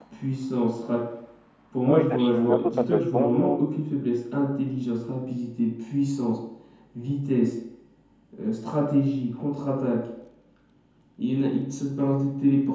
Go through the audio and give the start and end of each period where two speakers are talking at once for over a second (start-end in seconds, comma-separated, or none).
1.9-3.7